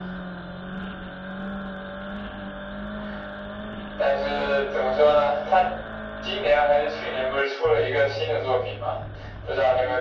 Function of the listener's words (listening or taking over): listening